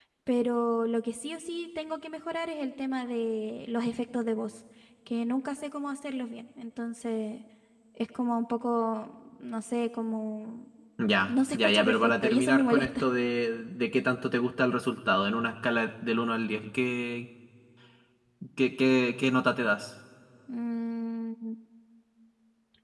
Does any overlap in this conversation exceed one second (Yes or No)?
Yes